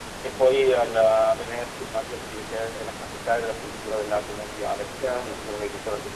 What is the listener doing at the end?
listening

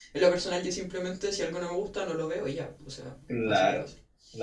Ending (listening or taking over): taking over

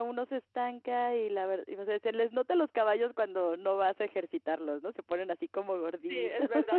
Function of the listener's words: taking over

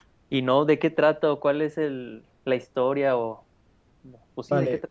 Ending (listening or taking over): taking over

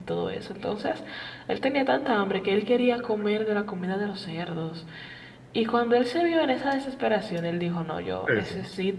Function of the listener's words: listening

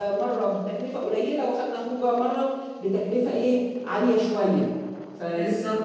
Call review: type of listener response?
taking over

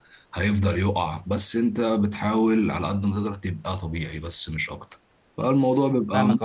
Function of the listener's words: taking over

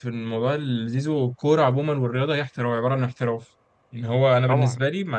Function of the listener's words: listening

